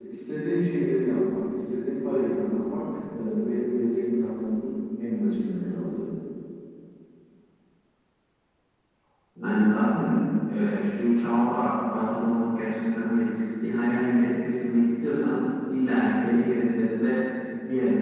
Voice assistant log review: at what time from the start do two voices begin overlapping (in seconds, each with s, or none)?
none